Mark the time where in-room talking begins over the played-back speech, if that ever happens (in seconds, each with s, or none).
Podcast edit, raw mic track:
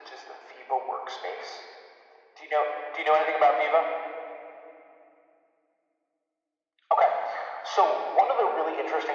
none